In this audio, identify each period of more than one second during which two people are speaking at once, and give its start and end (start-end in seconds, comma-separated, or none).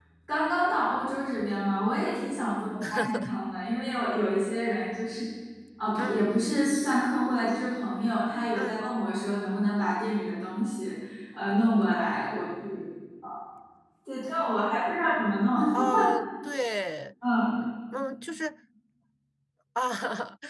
none